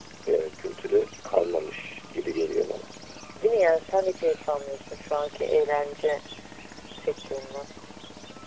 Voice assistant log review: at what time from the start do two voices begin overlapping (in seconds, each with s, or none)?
none